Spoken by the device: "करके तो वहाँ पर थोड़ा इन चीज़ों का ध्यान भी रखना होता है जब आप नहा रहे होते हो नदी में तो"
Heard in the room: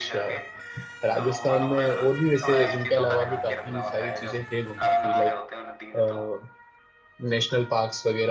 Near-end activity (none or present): present